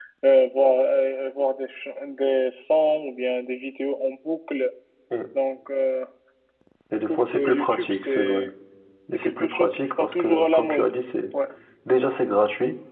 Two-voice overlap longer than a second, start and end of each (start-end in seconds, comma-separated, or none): 7.1-8.4, 9.1-10.9